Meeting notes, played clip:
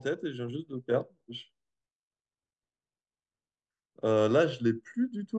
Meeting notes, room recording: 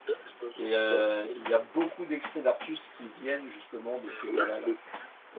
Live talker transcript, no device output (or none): Et euh, il y a beaucoup d'extraits d'Artus qui viennent justement de ces galas-là.